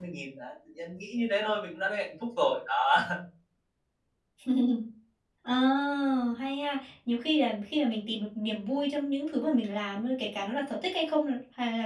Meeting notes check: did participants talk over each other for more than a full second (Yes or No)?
No